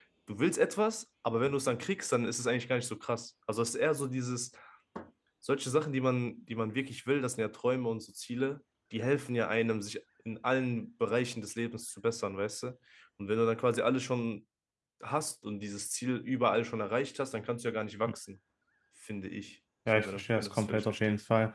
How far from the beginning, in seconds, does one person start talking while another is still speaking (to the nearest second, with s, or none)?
20 s